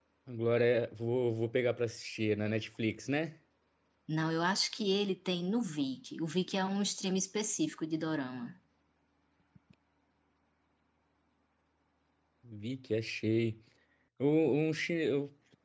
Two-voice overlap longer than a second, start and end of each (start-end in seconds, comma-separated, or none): none